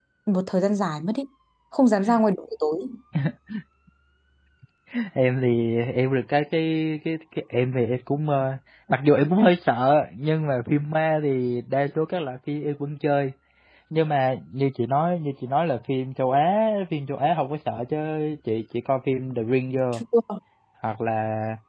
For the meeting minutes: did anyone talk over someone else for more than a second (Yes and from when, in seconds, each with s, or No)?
No